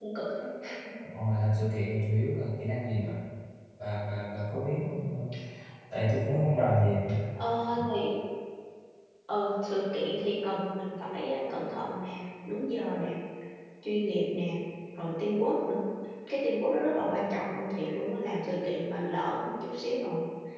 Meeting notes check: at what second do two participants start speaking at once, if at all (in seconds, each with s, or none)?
none